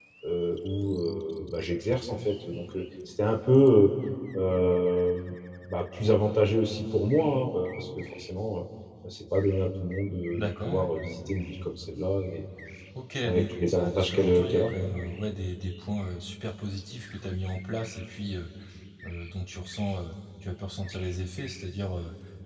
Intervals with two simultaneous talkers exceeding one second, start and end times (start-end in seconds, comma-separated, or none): 13.2-14.7